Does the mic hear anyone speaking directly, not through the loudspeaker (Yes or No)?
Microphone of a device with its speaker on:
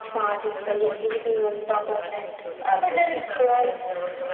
Yes